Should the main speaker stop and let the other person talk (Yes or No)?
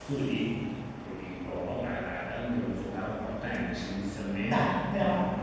No